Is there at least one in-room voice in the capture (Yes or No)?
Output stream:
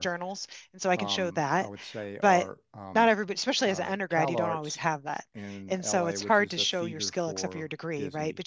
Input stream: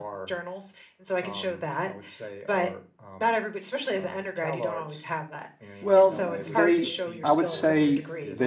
Yes